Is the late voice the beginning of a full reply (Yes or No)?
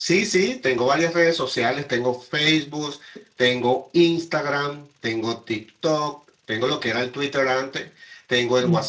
No